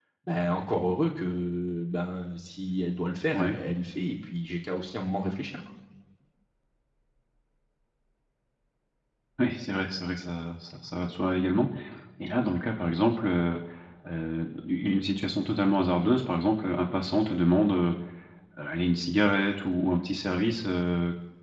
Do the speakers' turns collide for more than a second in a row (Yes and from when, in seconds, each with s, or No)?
No